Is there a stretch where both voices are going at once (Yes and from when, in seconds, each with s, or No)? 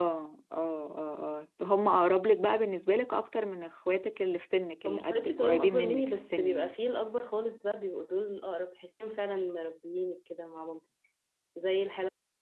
Yes, from 4.8 s